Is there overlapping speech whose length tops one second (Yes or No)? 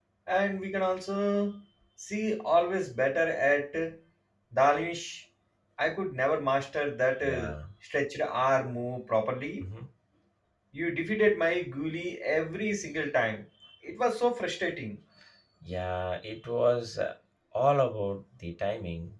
No